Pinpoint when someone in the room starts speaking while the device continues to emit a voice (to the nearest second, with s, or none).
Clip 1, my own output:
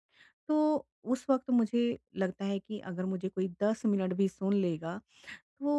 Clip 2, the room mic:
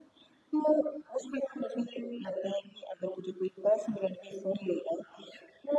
none